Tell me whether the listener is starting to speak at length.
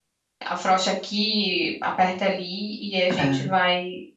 No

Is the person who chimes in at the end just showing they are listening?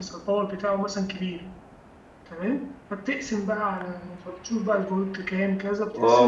No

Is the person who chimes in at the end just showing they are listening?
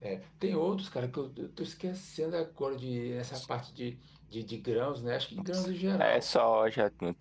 No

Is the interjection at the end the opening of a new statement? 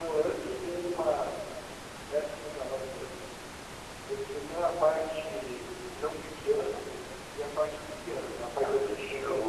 Yes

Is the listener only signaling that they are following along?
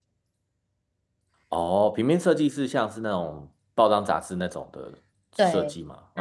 No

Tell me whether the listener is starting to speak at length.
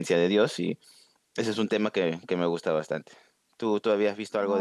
Yes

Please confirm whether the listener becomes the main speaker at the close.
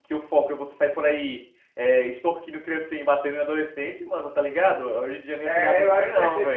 Yes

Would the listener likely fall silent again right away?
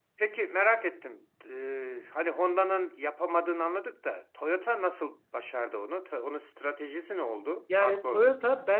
No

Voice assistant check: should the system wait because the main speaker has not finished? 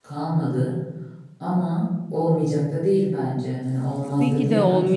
No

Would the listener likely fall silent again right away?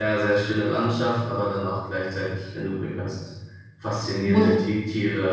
Yes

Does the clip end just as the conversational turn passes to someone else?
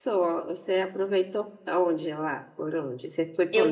Yes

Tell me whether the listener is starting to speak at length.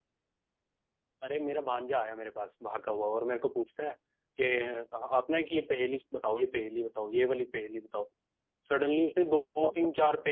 No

